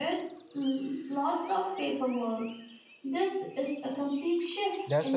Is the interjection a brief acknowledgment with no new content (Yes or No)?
No